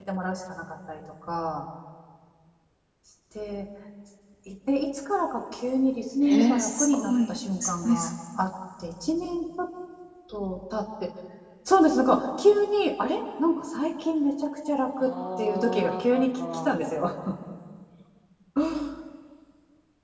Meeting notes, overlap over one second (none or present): present